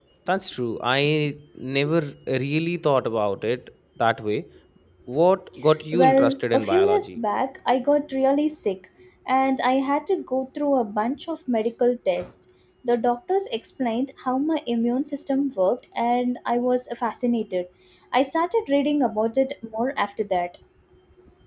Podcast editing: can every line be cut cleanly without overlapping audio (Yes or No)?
No